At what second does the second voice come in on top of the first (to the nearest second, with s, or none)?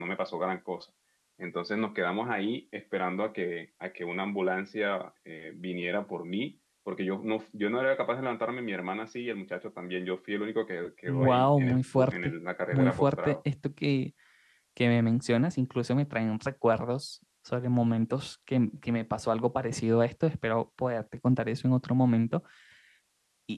11 s